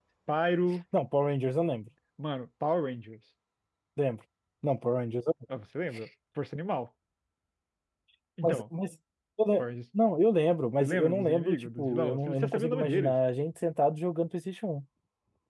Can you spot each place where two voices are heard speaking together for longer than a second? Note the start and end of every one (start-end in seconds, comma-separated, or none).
10.8-13.2